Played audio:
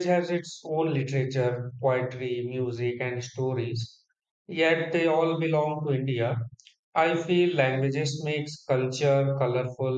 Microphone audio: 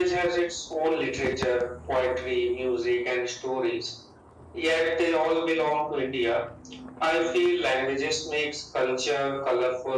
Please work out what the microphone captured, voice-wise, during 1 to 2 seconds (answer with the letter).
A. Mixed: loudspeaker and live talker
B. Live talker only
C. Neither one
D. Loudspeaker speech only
D